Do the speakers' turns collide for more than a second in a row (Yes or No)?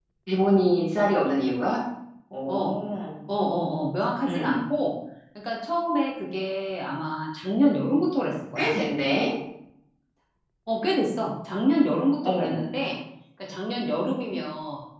No